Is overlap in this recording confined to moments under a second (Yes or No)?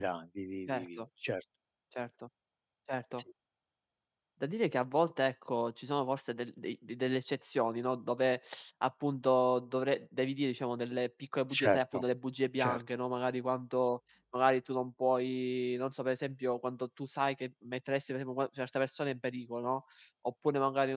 Yes